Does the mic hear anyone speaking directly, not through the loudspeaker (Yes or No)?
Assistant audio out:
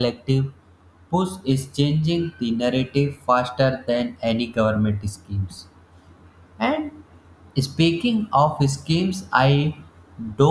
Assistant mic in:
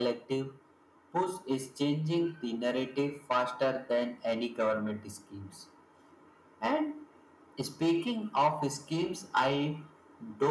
No